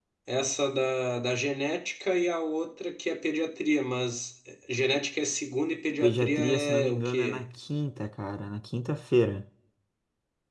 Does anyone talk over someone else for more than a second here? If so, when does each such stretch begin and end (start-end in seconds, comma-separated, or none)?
6.0-7.4